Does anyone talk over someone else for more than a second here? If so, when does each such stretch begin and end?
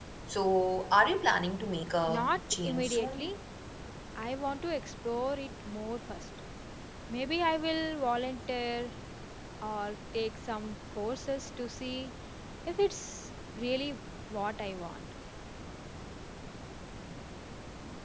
2.1-3.3

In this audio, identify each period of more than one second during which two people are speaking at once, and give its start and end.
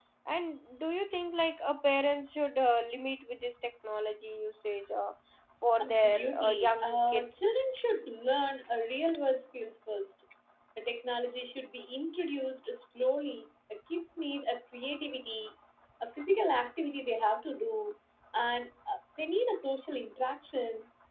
5.8-7.6

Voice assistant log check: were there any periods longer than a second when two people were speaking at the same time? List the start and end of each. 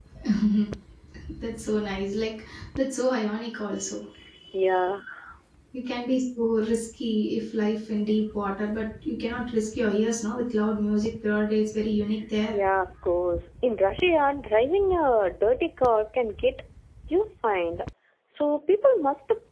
none

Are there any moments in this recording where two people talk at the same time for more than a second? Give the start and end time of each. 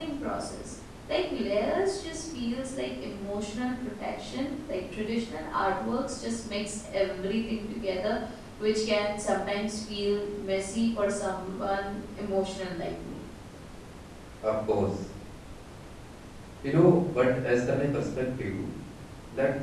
none

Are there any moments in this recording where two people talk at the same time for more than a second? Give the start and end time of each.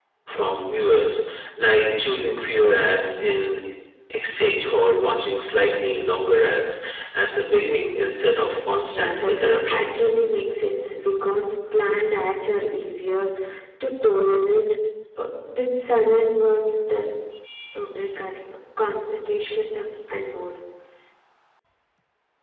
8.9-10.1

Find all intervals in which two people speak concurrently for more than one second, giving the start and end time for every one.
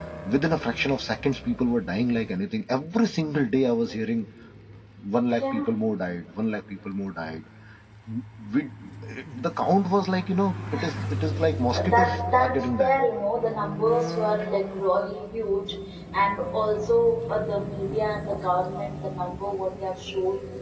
11.7-13.0

